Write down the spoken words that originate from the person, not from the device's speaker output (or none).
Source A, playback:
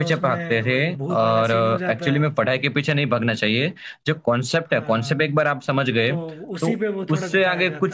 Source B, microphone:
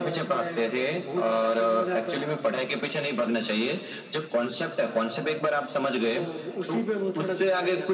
none